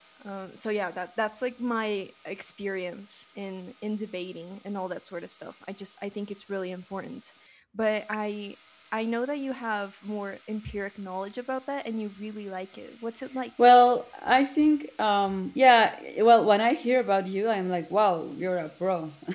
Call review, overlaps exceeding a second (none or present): none